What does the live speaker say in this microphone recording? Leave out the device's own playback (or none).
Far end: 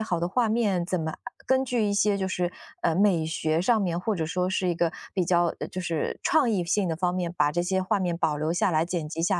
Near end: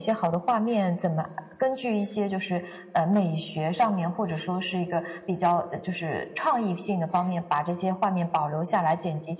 none